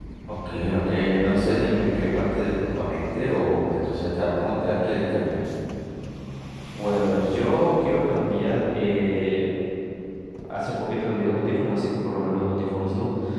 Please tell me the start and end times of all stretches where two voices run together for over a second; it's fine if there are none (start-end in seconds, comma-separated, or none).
none